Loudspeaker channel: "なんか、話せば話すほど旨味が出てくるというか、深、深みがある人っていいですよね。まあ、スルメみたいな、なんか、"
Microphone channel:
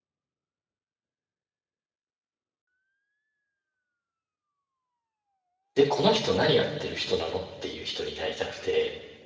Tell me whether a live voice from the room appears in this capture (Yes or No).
Yes